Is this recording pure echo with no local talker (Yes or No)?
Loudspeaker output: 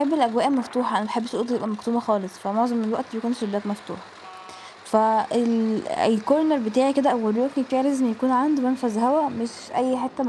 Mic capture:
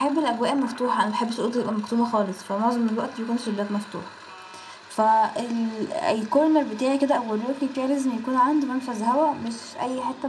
Yes